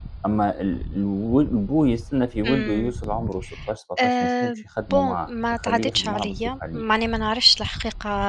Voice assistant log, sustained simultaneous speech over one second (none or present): present